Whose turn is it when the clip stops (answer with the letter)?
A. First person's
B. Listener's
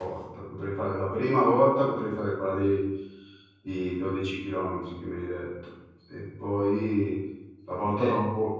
A